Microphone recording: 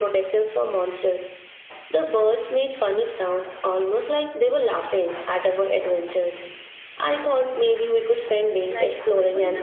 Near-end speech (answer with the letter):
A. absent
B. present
B